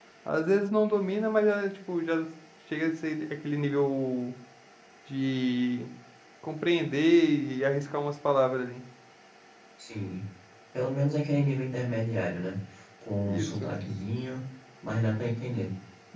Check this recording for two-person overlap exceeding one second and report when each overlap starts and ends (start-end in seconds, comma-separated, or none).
none